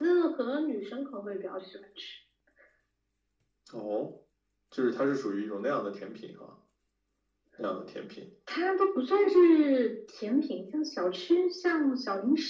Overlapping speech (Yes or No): No